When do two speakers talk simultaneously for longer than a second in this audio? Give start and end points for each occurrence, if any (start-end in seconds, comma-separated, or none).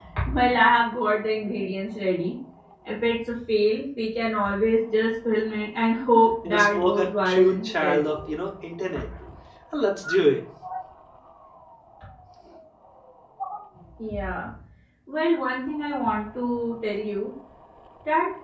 6.4-8.0